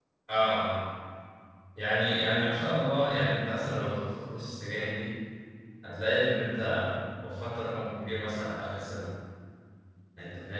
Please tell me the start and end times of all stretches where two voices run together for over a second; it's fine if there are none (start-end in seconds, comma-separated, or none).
none